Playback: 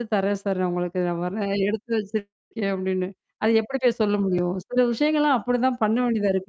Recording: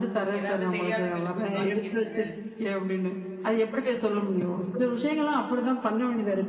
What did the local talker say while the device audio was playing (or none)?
ஏதாவது தெரியாதவங்கள்ட்ட போயி மாட்டிக்கிட்டாங்க,